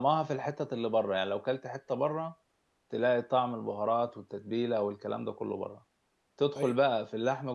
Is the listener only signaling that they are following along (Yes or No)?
Yes